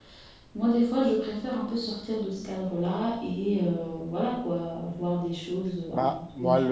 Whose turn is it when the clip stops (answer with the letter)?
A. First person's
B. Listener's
B